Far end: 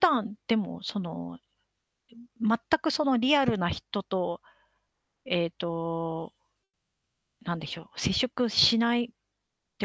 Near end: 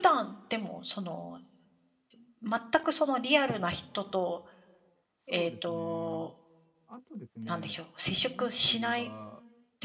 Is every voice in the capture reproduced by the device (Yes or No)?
No